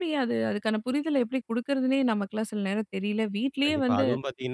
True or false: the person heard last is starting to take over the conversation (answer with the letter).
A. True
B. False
A